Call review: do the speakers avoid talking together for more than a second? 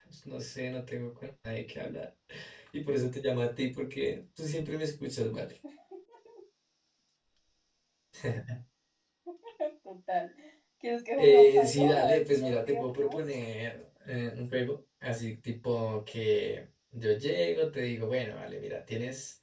No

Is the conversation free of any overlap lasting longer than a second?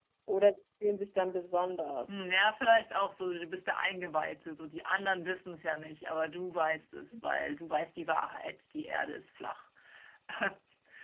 Yes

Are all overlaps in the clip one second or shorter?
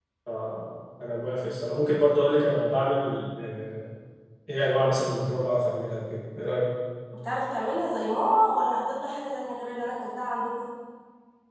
Yes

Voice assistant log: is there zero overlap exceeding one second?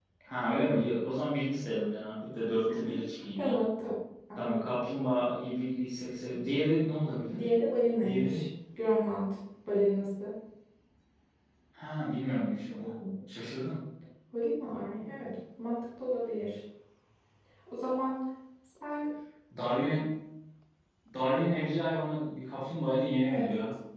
Yes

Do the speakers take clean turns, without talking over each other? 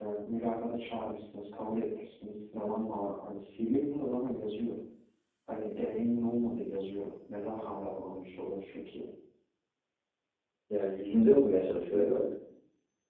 Yes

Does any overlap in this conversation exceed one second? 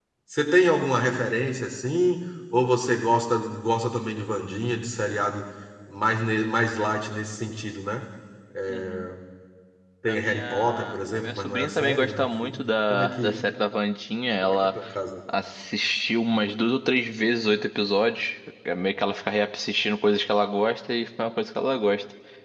Yes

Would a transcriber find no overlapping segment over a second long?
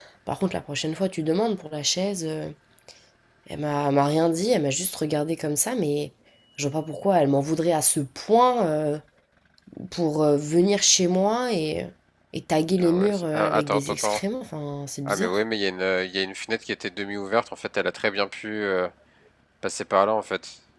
No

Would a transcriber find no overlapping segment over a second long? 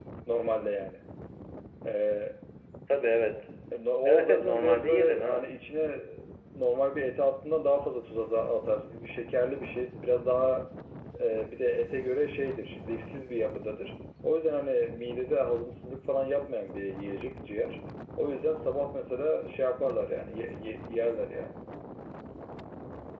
No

